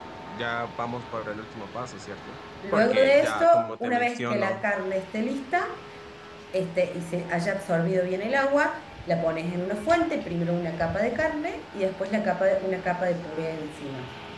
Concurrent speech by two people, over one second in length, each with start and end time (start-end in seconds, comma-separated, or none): 2.7-4.6